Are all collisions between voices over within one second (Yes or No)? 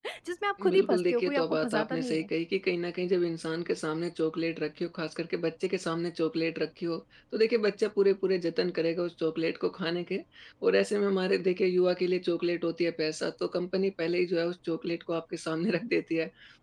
No